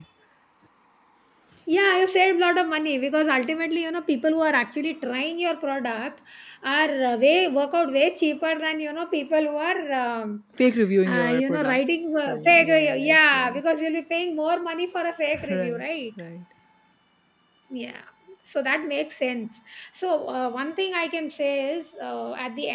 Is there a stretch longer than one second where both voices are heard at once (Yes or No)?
Yes